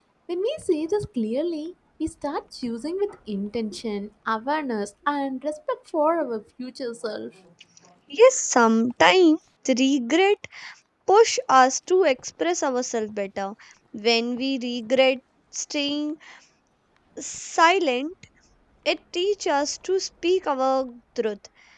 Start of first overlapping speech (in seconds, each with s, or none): none